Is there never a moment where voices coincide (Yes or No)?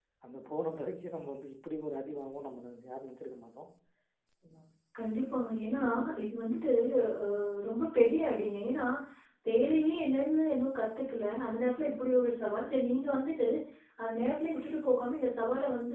Yes